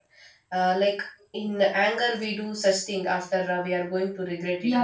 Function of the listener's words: taking over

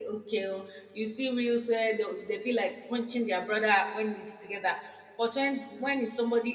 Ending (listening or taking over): listening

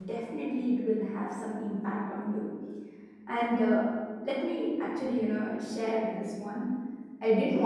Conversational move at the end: listening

